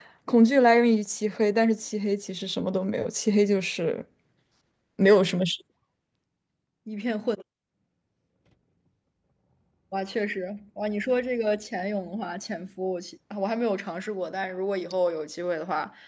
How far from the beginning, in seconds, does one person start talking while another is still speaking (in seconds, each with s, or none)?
none